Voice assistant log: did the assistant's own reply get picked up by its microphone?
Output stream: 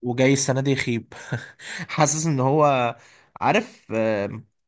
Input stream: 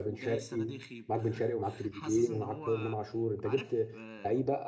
Yes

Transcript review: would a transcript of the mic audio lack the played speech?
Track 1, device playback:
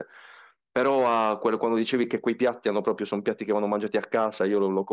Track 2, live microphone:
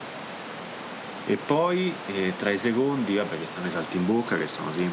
Yes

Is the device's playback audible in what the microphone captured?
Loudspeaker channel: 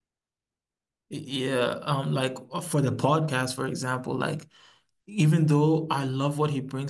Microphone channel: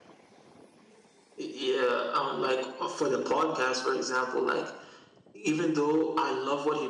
Yes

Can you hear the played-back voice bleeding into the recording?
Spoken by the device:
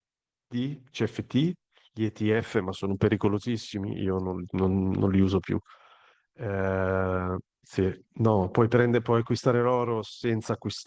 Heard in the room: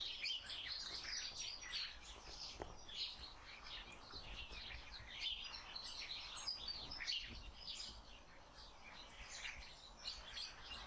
No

